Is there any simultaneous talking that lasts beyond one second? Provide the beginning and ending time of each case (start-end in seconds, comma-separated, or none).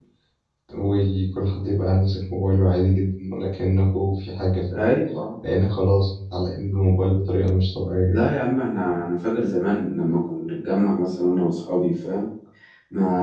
none